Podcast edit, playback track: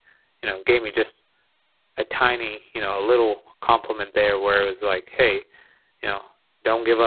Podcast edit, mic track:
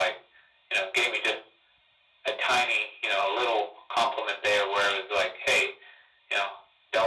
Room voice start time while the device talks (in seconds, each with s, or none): none